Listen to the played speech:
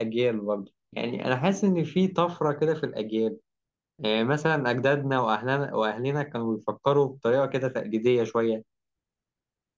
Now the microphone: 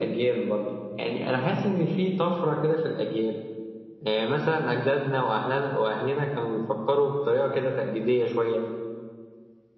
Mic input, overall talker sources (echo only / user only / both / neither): echo only